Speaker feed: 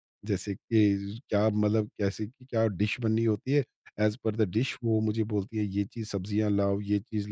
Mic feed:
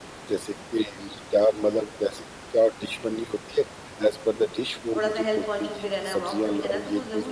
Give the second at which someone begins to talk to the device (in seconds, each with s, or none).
5.0 s